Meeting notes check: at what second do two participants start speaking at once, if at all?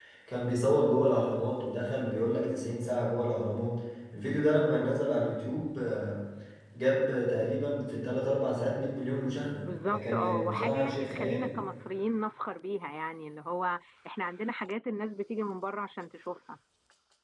9.9 s

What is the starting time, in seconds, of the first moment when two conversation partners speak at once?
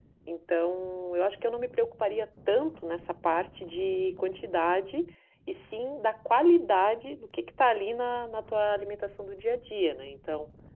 none

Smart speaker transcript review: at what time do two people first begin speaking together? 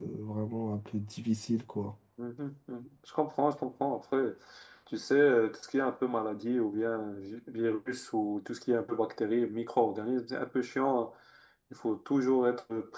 none

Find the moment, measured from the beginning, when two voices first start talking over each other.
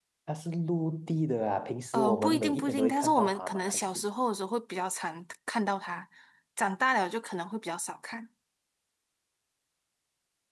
1.9 s

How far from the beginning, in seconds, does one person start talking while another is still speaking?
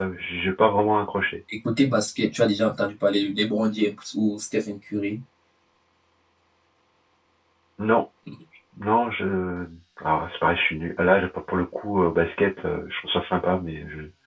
none

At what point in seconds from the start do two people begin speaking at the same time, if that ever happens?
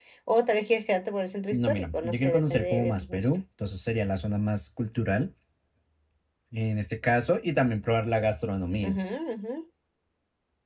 1.5 s

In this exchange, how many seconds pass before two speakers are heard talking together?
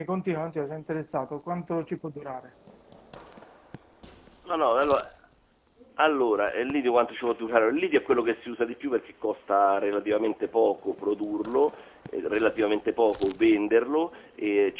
none

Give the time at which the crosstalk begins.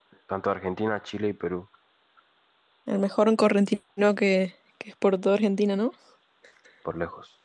none

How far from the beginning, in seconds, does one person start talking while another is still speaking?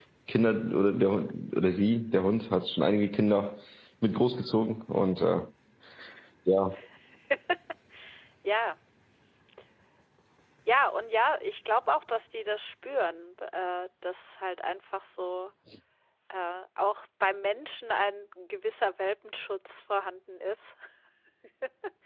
none

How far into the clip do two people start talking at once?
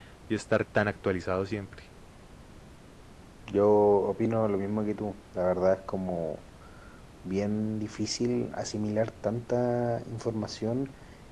none

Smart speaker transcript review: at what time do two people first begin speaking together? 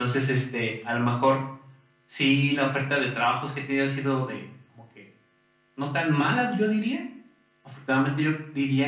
none

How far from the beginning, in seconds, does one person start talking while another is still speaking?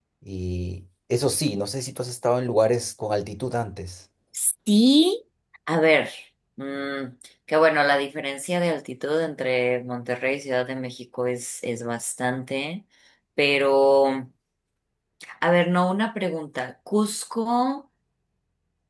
none

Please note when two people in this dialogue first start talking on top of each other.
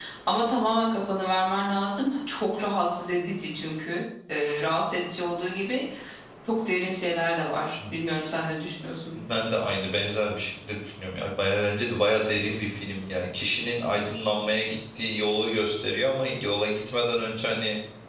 none

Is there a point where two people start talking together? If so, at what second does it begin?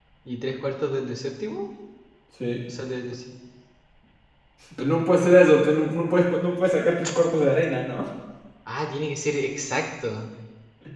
none

